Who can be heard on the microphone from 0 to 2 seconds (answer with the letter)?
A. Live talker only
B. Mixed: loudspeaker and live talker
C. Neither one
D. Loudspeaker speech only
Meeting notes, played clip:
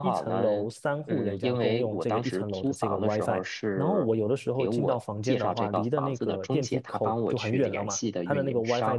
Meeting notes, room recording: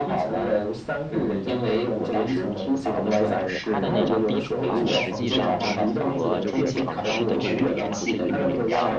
D